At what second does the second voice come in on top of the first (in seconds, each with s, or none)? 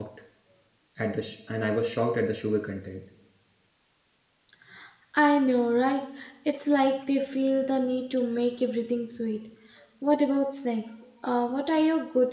none